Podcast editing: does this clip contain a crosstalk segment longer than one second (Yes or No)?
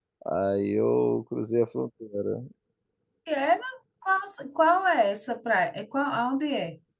No